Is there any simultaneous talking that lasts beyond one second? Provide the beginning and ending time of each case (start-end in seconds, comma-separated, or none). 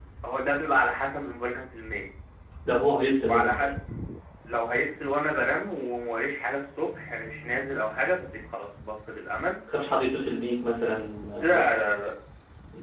none